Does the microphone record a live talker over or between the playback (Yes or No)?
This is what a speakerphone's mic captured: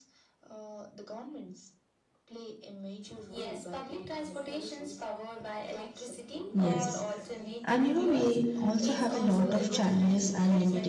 Yes